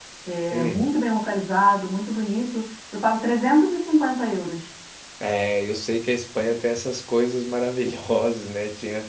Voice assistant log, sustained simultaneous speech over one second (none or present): none